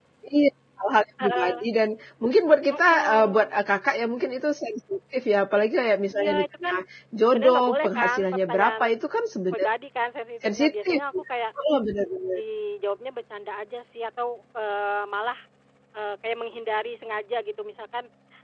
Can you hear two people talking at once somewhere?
Yes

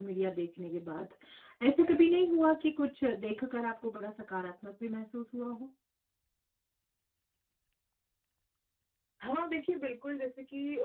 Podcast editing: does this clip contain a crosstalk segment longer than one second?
No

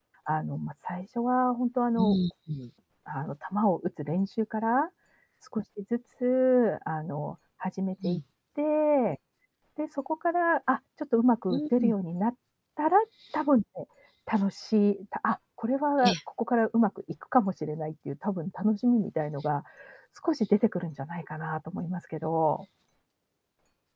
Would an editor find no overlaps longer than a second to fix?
Yes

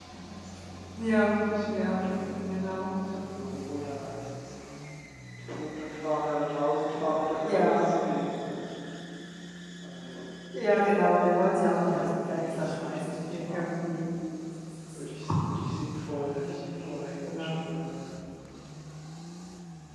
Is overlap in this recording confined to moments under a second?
No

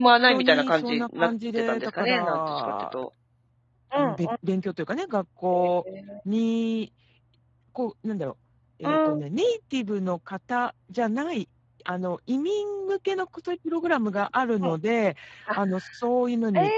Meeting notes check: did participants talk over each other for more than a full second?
Yes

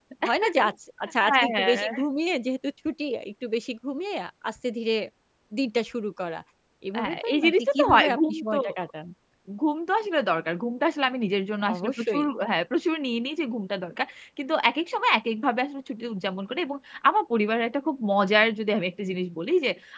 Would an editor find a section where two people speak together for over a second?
Yes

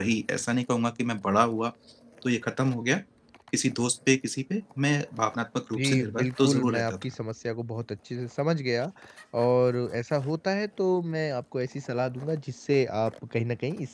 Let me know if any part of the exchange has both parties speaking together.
Yes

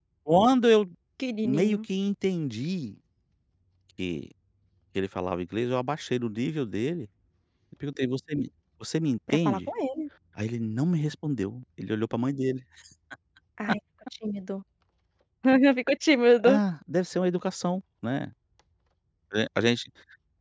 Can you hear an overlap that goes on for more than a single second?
No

